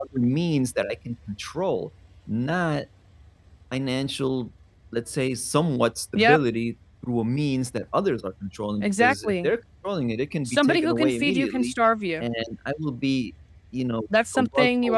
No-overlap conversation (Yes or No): No